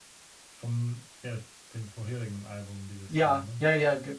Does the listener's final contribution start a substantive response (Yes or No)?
Yes